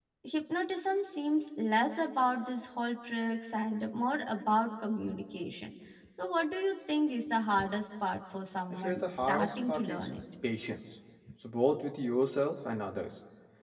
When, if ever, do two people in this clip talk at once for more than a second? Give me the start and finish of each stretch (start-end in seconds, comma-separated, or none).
8.7-10.1